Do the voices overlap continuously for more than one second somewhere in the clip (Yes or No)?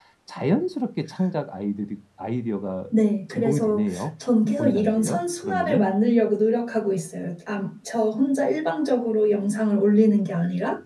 Yes